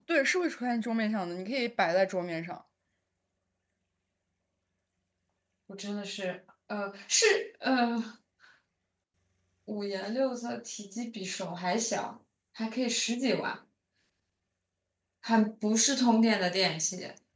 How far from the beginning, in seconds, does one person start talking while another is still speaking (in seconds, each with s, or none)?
none